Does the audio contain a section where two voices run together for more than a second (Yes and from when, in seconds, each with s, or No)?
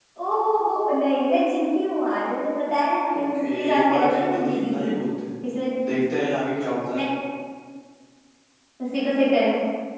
Yes, from 3.1 s